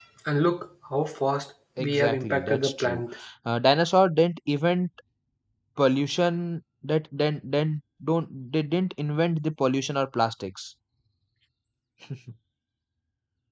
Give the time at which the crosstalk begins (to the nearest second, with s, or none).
2 s